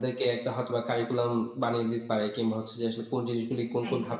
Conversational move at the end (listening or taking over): listening